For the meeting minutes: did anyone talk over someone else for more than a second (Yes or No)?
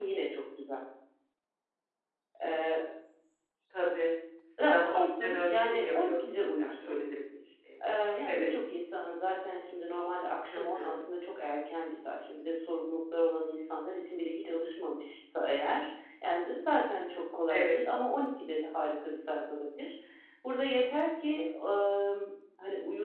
Yes